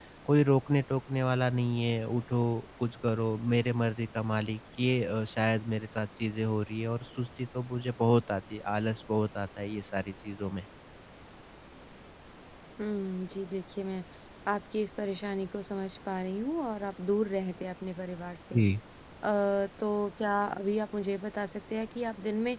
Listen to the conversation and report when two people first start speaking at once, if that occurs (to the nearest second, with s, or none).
none